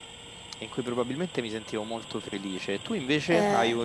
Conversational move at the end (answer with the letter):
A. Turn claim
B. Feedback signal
B